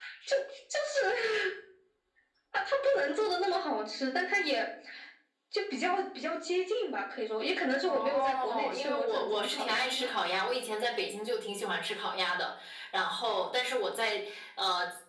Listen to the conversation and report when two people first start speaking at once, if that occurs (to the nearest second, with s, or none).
8 s